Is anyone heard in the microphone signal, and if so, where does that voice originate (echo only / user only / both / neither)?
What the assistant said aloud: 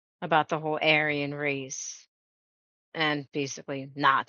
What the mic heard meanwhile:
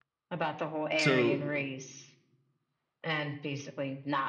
both